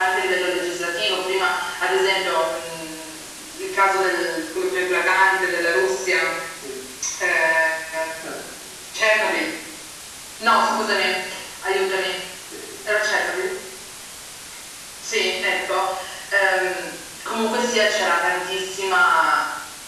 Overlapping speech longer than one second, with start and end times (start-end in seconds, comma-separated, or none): none